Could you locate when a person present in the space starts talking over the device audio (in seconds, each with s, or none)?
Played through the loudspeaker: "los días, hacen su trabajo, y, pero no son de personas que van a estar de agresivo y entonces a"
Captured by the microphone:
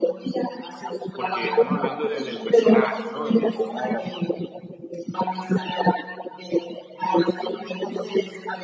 1.1 s